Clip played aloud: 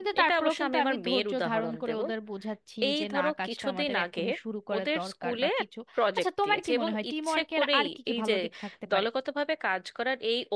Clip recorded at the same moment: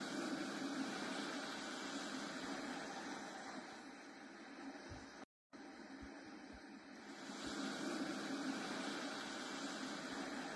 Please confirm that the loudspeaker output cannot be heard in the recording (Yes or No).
Yes